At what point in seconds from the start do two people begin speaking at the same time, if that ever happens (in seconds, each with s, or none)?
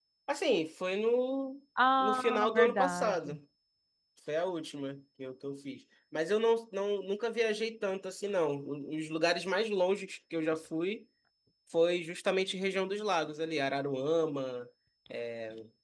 2.0 s